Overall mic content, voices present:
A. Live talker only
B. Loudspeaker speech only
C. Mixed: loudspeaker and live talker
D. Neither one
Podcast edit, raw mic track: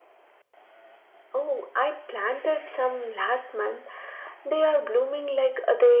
B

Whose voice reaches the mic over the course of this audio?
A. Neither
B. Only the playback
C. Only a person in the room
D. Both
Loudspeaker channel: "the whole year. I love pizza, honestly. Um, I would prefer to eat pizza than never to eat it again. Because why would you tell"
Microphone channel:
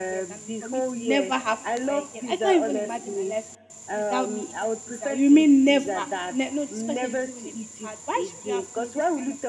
D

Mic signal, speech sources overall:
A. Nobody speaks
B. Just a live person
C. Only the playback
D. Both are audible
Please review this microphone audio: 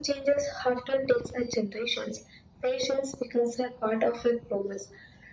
C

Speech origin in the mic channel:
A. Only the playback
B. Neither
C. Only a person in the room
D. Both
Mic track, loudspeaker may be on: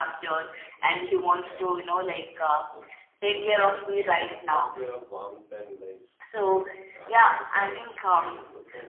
D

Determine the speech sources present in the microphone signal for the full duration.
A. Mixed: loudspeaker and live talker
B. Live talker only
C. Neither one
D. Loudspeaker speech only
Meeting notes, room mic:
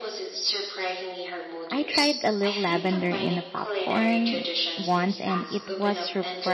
A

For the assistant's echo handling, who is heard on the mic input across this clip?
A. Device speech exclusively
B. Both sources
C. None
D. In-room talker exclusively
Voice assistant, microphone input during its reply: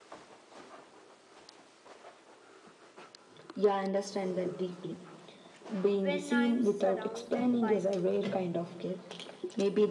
B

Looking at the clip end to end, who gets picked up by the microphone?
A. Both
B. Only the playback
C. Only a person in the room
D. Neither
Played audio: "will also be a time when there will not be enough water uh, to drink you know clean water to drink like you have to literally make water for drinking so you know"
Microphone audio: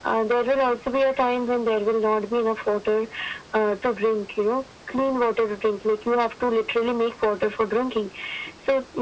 B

